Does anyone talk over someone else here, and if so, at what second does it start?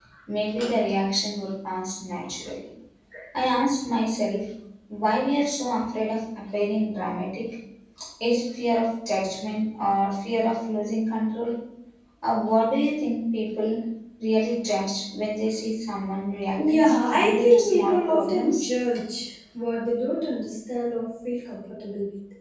17 s

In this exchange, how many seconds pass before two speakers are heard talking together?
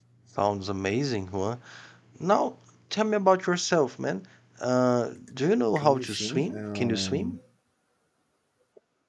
6 s

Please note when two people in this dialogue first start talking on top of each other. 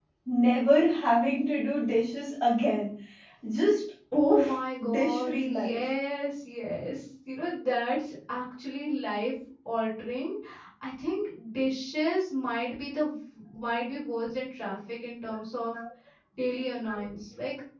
4 s

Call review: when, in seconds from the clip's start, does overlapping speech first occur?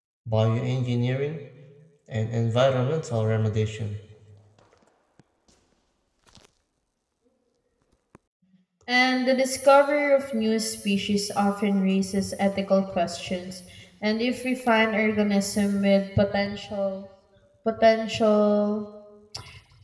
none

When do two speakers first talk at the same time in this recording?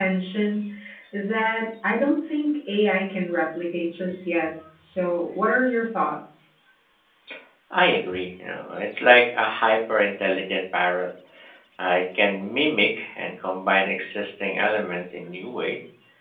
none

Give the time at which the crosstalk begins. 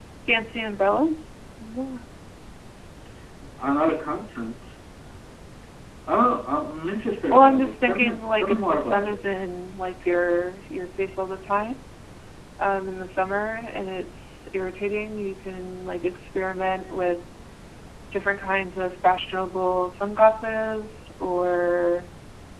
7 s

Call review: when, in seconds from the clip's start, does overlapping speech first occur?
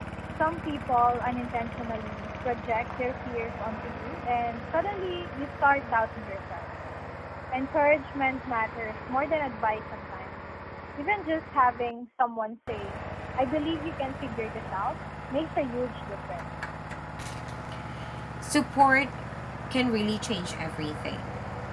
none

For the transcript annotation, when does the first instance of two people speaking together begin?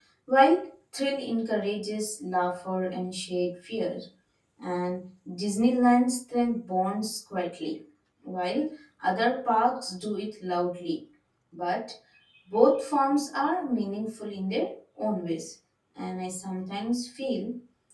none

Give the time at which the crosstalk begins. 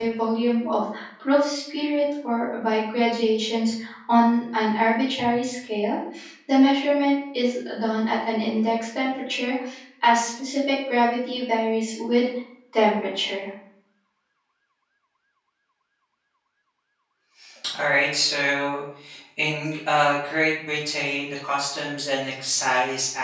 none

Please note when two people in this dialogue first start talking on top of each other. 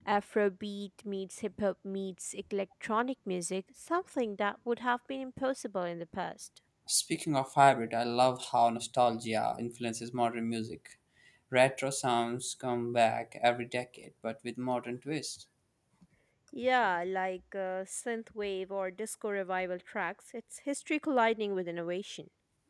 none

